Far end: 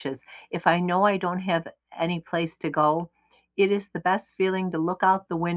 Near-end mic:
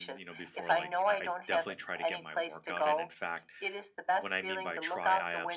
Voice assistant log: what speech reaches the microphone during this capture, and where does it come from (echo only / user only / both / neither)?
both